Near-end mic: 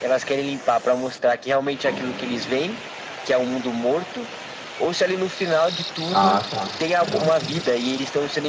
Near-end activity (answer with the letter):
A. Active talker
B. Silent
A